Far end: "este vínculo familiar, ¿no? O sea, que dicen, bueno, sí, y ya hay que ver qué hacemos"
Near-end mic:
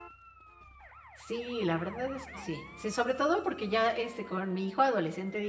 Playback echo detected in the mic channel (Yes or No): No